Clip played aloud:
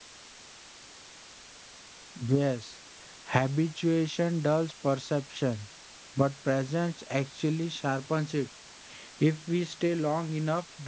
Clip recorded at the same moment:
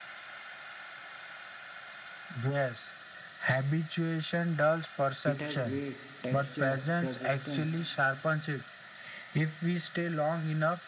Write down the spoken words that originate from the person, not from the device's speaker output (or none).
It has weight, texture, resistance,